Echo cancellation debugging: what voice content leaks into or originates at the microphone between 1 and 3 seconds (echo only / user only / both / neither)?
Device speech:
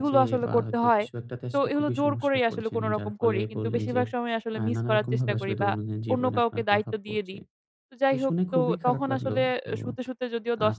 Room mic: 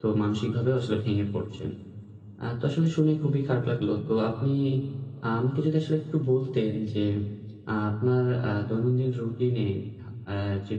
user only